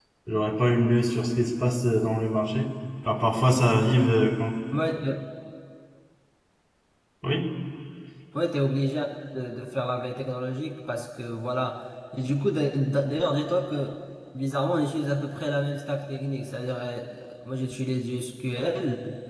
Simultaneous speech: No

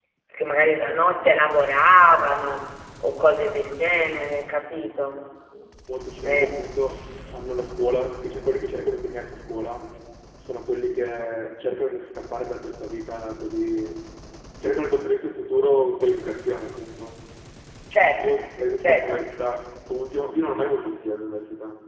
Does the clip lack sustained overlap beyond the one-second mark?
Yes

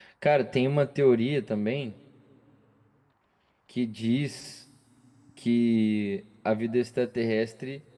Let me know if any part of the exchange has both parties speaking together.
No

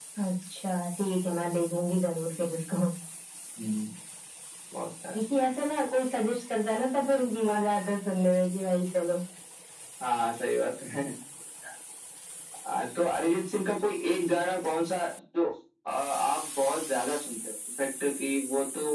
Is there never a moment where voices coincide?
Yes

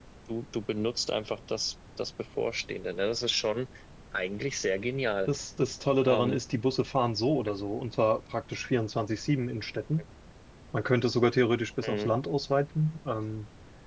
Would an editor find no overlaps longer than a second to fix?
Yes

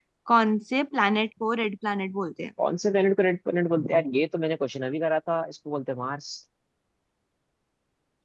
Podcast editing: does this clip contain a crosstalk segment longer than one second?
No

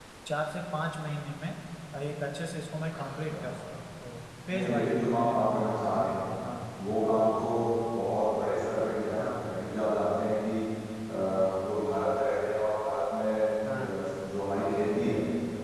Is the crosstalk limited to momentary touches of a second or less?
No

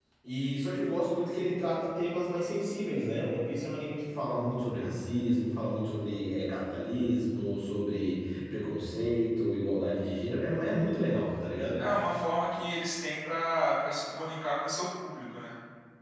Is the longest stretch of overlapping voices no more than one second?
Yes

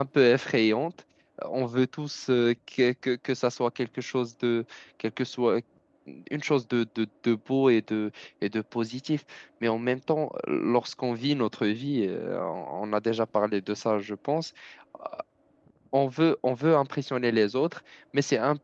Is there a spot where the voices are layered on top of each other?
No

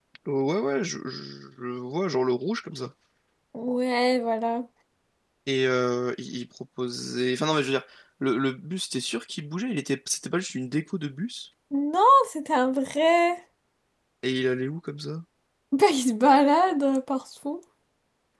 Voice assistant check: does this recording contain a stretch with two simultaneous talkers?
No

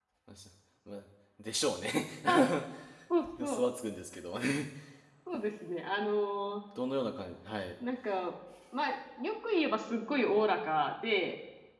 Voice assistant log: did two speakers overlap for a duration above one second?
No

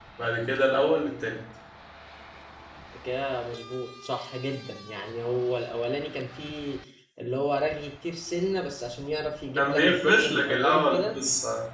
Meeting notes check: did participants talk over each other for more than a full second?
Yes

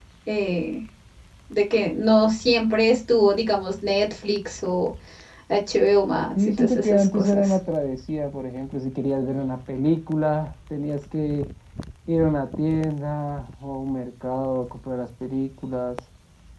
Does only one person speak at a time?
No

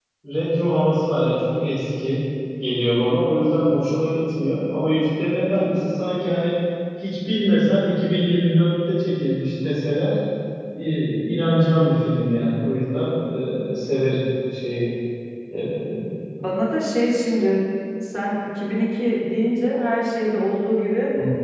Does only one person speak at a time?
Yes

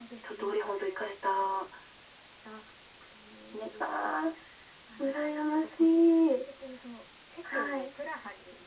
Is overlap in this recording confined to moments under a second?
No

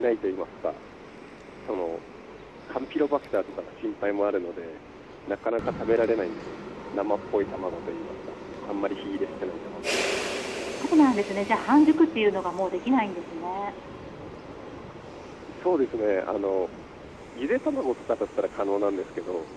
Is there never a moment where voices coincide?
Yes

